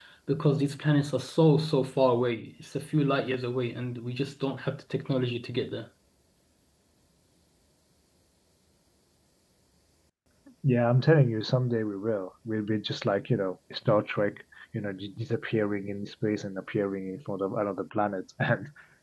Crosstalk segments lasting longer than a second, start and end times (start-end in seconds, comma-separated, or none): none